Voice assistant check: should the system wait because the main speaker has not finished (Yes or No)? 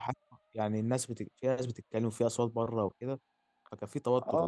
No